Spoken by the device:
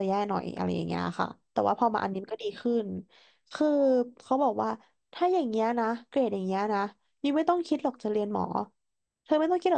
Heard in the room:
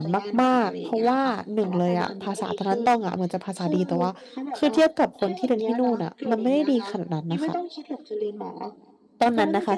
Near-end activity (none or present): present